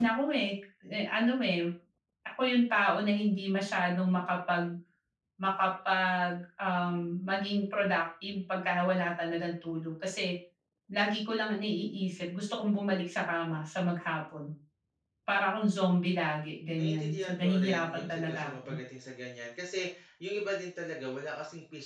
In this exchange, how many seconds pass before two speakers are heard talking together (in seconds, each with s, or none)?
16.7 s